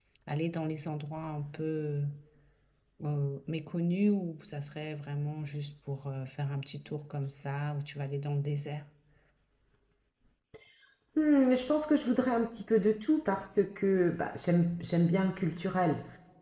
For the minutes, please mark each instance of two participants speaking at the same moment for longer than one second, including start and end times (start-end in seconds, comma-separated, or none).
none